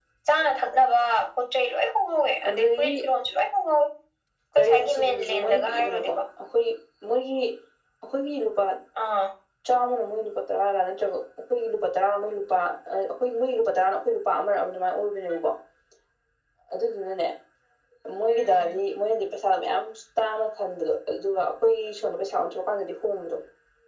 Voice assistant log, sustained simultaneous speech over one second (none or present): present